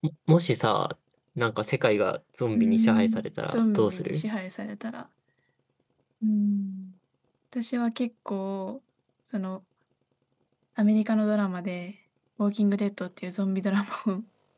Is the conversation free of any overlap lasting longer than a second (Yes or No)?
No